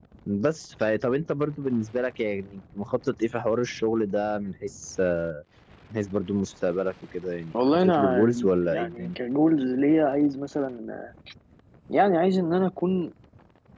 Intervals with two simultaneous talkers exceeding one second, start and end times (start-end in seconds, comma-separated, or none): 7.7-9.2